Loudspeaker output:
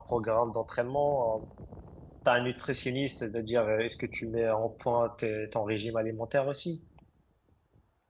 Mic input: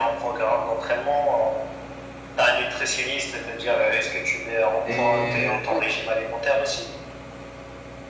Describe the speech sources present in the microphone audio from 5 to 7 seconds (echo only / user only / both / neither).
both